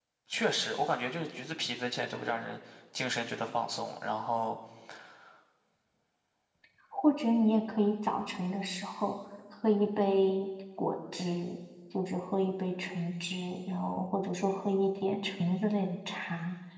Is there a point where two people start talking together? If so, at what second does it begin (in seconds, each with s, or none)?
none